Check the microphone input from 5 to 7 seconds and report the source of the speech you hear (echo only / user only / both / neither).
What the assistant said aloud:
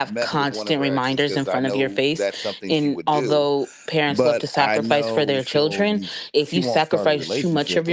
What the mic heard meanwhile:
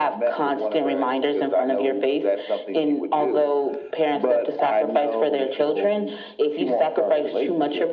echo only